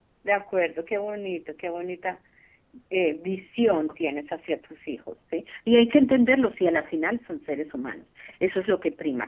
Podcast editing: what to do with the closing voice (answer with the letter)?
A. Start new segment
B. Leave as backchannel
B